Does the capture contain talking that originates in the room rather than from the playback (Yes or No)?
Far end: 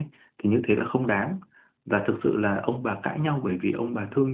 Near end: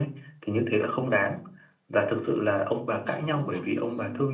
Yes